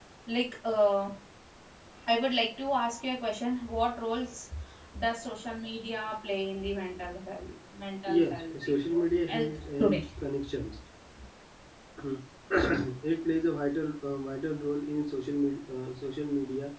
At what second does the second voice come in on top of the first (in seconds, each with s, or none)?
8.2 s